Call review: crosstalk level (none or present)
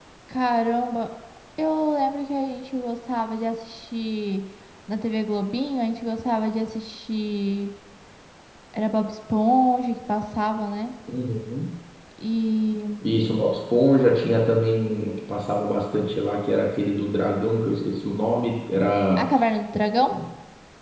none